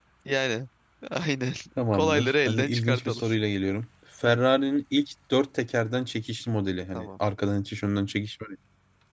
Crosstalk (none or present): present